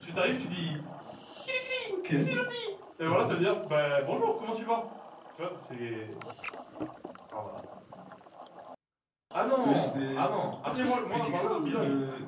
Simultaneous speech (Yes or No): Yes